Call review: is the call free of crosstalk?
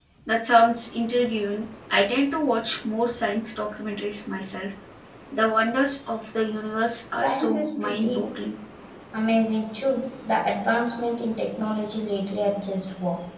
No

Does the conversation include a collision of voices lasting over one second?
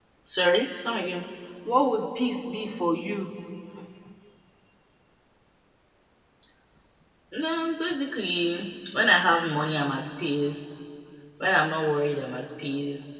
No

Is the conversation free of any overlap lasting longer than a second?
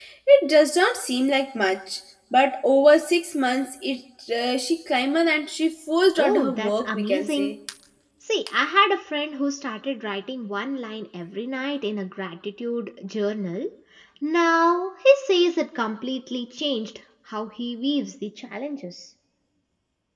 No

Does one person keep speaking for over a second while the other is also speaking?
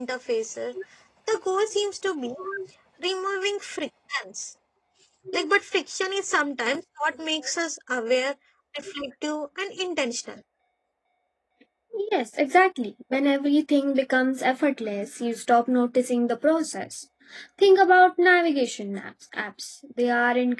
No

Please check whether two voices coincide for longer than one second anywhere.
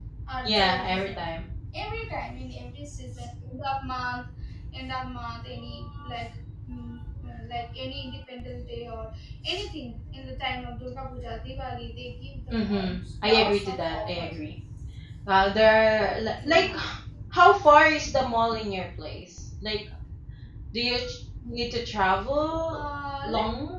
Yes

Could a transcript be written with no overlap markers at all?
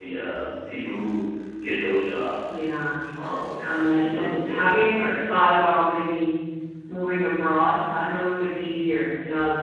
No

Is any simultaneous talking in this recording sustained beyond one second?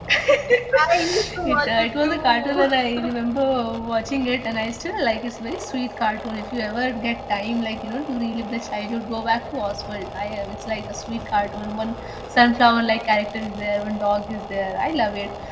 Yes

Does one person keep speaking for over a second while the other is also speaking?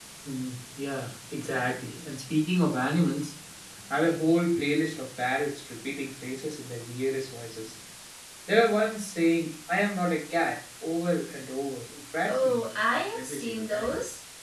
Yes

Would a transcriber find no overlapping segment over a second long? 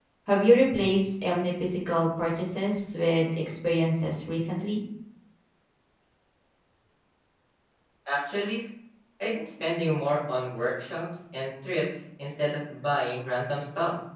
Yes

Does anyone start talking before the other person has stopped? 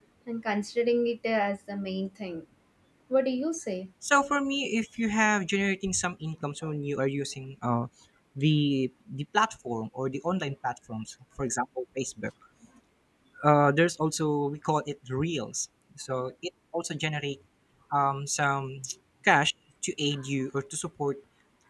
No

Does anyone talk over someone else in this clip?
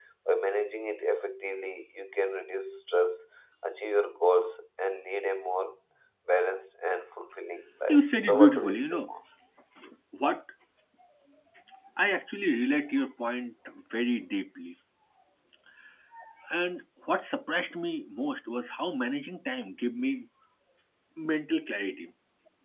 Yes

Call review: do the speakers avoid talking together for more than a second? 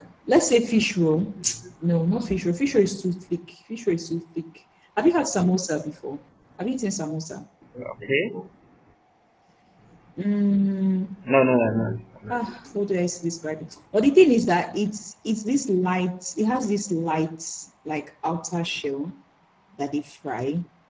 Yes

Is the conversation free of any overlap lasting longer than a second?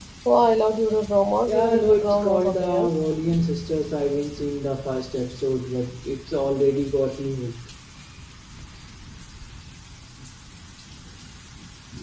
No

